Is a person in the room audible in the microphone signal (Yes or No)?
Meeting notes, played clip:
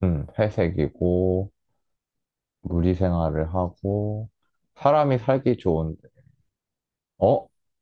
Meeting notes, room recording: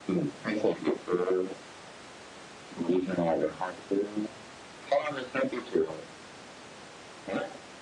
No